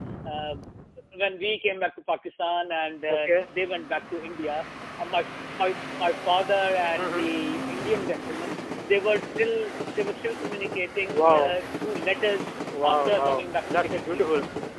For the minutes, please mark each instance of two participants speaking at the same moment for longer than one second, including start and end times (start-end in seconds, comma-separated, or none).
12.8-14.3